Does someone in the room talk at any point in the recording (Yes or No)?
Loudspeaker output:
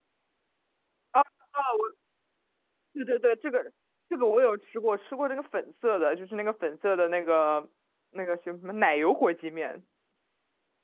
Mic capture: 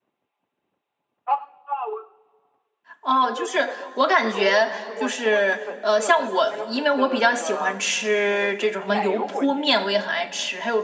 Yes